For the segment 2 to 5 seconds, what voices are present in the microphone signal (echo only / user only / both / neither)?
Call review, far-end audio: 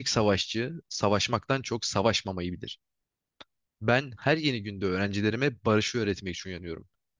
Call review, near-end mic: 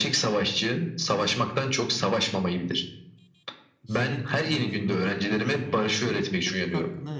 both